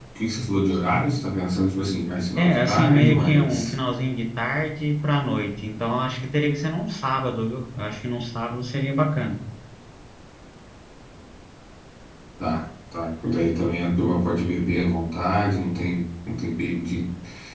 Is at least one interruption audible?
Yes, from 2.4 s

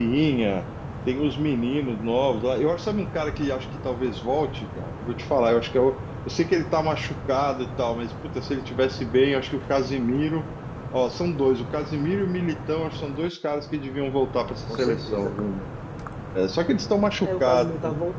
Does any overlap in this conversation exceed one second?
Yes, from 14.2 s

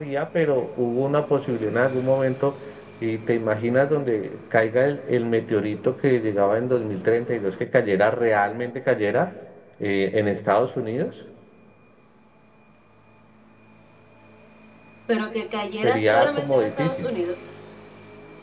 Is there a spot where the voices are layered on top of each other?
Yes, from 15.8 s

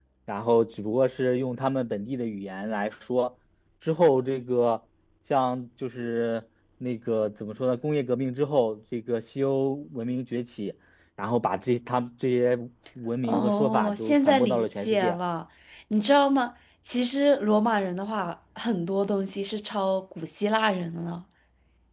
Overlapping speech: Yes, from 13.2 s

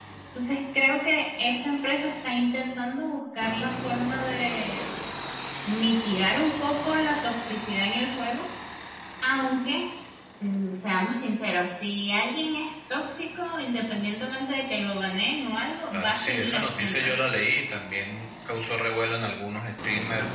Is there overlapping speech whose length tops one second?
Yes, from 15.9 s

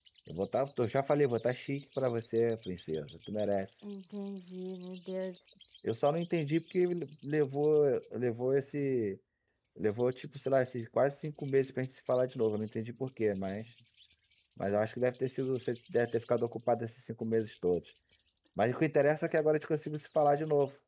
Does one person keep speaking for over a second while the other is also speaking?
No

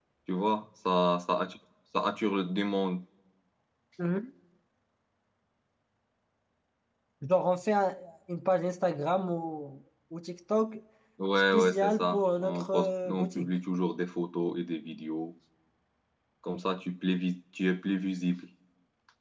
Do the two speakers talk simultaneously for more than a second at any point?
Yes, from 11.5 s

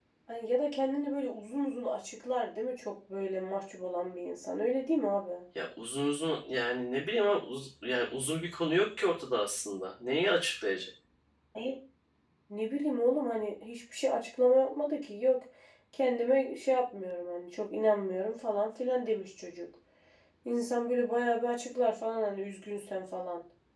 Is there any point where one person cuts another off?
No

